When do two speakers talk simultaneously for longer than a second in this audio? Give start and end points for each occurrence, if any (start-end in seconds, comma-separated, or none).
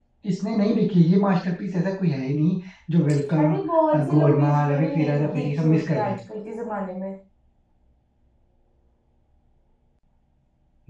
4.1-6.2